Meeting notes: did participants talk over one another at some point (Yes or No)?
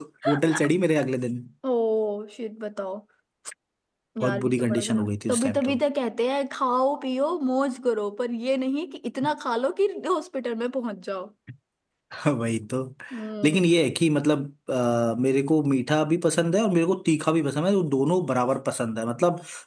Yes